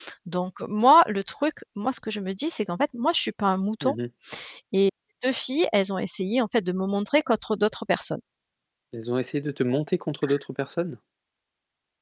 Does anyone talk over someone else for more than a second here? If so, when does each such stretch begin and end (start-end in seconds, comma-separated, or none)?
none